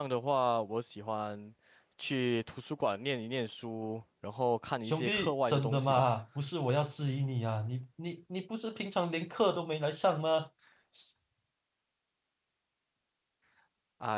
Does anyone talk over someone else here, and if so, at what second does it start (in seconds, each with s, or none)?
4.8 s